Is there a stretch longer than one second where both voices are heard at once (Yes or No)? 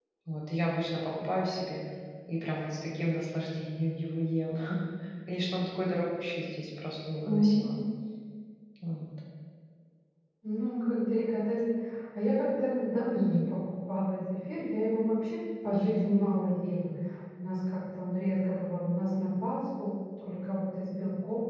No